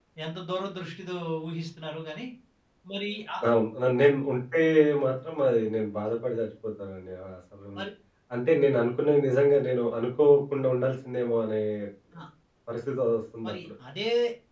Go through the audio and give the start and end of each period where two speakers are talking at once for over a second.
none

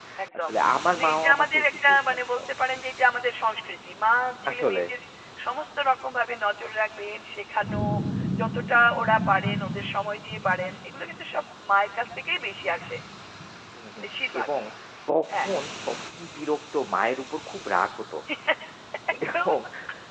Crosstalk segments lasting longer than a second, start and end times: 1.0-2.4

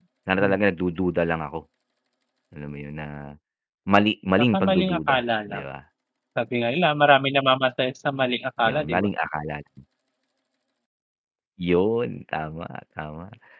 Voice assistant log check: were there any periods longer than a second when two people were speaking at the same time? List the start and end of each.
4.4-5.6

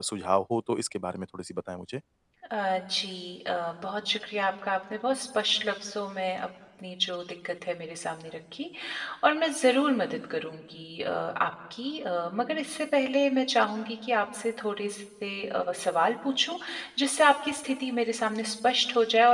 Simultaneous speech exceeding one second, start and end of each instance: none

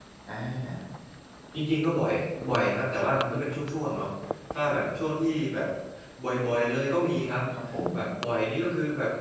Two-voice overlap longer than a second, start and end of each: none

